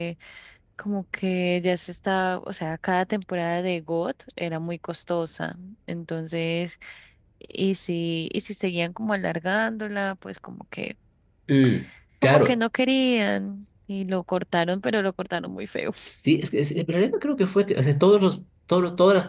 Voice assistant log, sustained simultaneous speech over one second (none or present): none